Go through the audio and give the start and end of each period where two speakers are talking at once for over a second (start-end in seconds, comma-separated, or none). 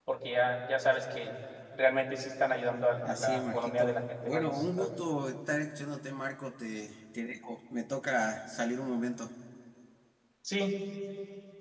3.0-5.0